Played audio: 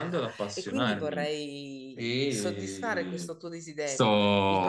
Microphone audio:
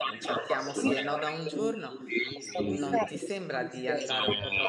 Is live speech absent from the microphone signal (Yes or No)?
No